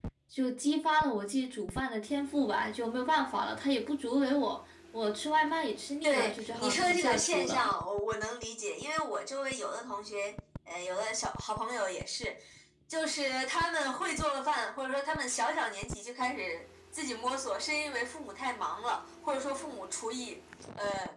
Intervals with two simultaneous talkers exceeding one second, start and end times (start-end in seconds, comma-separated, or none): 6.0-7.7